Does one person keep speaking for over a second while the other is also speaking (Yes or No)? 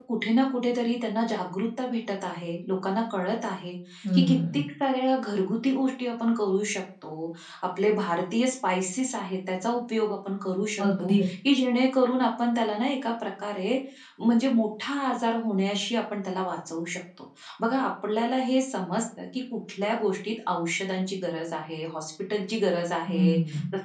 No